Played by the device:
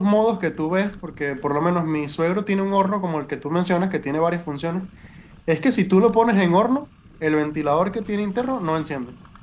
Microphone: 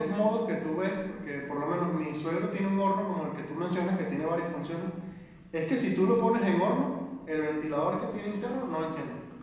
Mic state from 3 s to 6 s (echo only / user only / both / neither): echo only